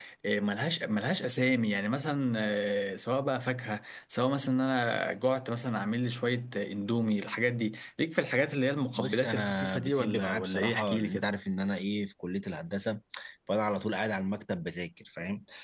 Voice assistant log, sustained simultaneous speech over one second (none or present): present